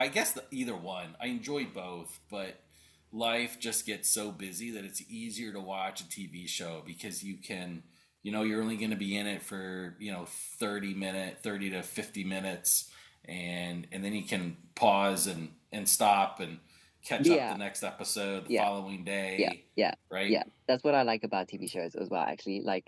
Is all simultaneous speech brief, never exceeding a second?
Yes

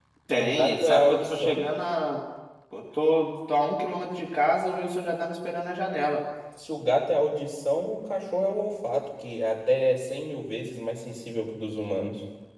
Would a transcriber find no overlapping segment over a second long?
No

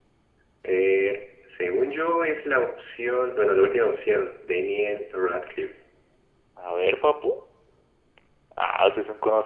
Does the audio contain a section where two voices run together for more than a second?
No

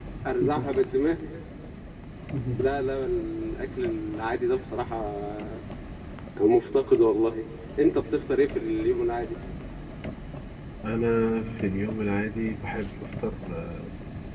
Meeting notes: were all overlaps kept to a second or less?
Yes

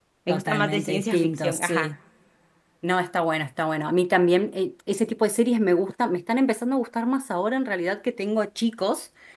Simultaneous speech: Yes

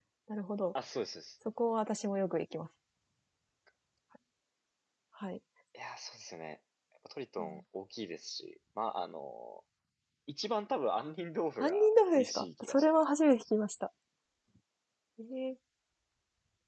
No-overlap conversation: No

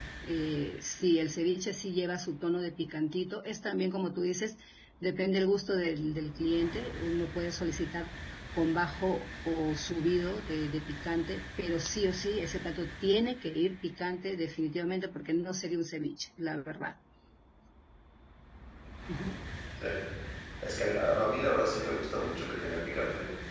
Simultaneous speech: No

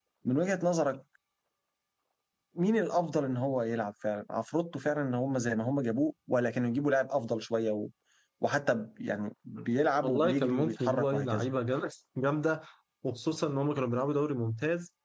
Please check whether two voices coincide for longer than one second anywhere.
Yes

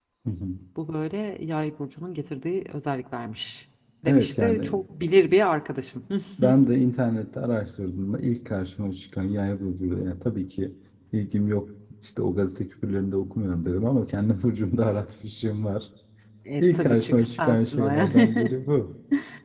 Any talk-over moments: Yes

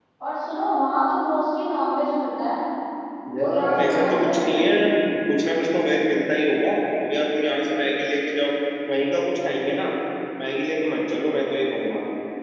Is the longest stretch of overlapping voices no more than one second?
No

